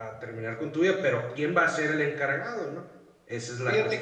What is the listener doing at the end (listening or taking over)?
taking over